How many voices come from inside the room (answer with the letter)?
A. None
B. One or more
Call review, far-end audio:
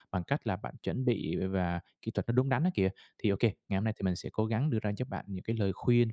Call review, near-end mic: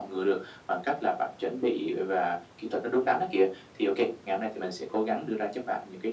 A